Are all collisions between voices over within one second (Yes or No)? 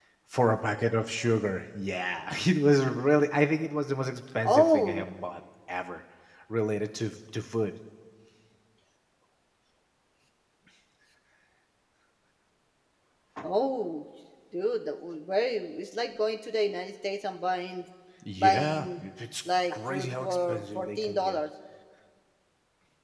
No